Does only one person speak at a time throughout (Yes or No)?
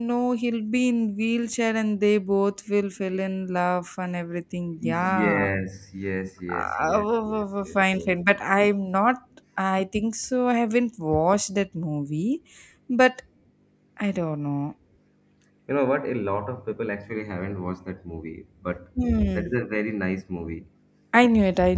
No